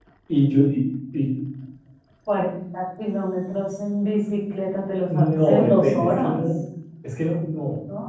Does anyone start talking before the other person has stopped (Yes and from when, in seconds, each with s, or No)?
Yes, from 5.1 s